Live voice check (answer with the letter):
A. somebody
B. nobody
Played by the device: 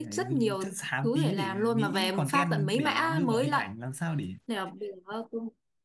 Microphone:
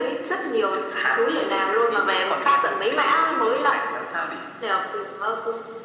B